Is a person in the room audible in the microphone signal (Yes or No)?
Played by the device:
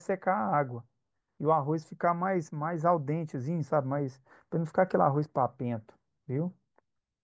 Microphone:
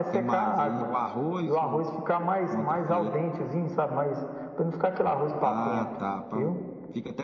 Yes